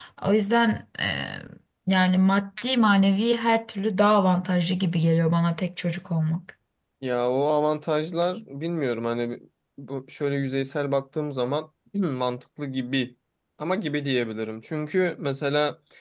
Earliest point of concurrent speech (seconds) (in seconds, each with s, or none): none